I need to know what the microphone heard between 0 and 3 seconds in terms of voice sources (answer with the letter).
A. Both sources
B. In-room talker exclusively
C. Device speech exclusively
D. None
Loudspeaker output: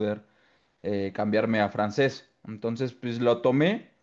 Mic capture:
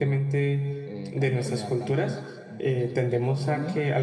A